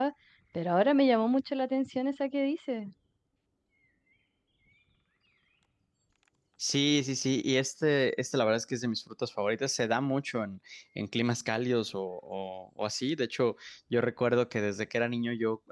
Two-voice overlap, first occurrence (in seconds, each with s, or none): none